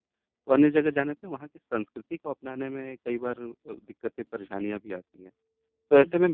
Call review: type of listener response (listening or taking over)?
listening